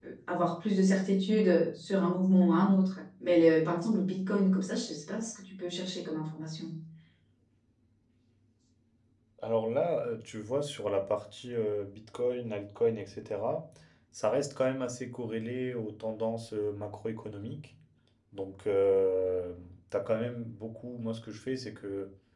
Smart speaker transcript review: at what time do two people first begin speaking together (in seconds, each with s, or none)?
none